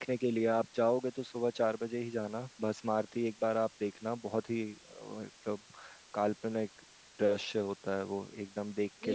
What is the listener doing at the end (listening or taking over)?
taking over